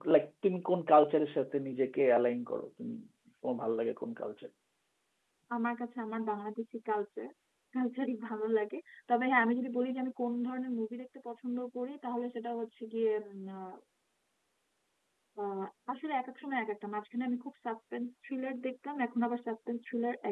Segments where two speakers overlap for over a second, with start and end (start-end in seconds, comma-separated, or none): none